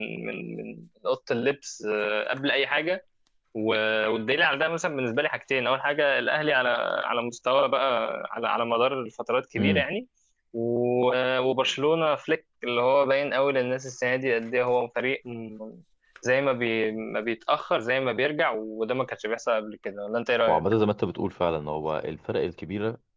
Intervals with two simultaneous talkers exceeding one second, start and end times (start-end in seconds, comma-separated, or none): none